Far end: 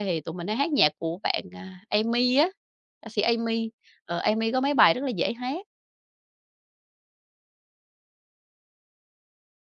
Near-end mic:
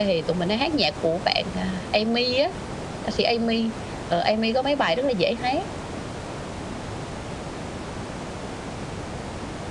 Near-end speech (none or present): none